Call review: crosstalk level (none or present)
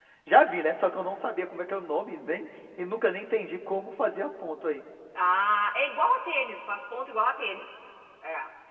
none